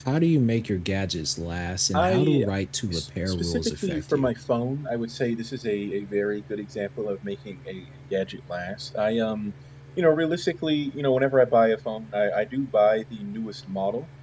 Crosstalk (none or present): present